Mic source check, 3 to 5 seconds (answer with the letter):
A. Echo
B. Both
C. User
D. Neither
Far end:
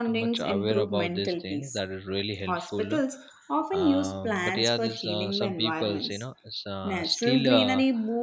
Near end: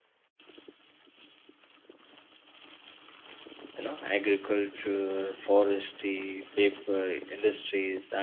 C